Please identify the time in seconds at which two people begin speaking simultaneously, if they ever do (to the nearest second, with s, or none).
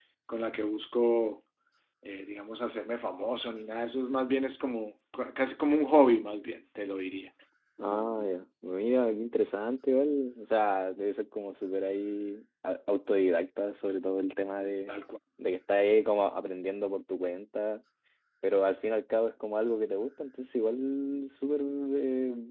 none